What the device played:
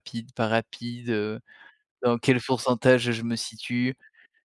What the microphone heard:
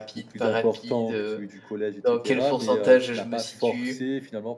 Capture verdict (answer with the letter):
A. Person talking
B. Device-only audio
A